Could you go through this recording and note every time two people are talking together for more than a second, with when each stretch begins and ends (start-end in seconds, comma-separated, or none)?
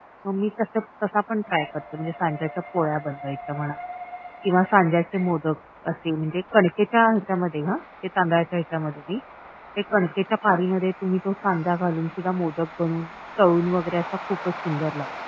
none